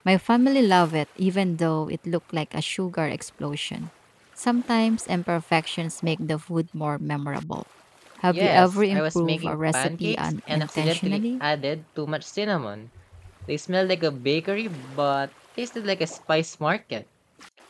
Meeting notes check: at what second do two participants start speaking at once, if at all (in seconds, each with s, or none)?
8.3 s